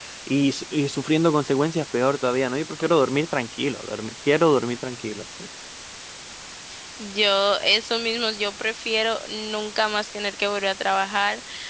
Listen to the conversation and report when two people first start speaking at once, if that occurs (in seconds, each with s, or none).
none